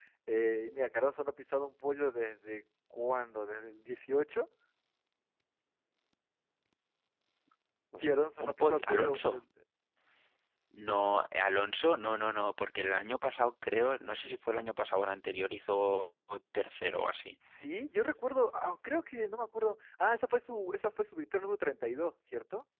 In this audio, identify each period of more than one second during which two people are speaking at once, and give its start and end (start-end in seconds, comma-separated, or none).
8.0-9.4